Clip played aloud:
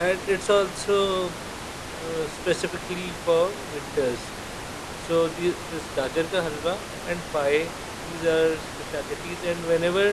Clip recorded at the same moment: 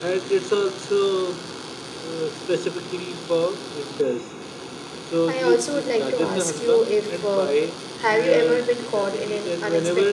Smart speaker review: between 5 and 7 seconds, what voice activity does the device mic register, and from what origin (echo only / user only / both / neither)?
both